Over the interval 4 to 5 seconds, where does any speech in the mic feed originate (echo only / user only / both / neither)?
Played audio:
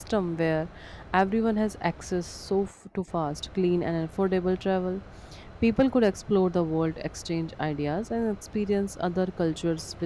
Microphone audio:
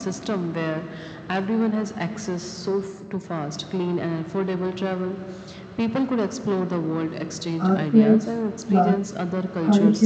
echo only